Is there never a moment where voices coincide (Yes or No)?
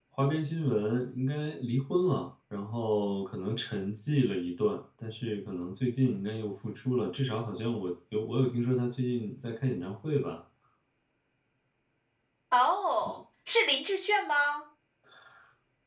Yes